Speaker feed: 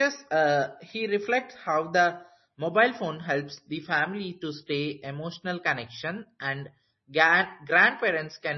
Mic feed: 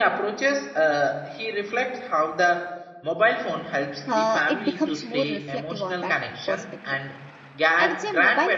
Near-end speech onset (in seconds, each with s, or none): 4.1 s